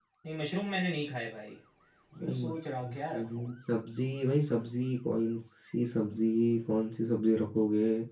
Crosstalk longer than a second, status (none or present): present